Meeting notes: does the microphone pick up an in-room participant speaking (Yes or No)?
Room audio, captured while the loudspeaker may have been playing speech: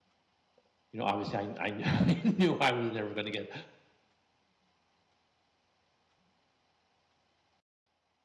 Yes